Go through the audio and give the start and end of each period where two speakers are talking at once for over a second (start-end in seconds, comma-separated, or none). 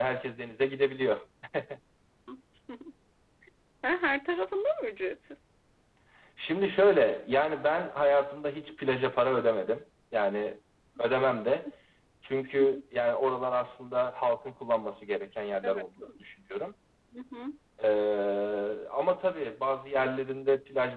none